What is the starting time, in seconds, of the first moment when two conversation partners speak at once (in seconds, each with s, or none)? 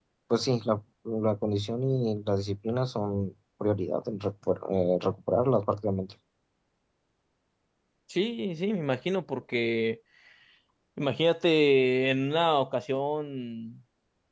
none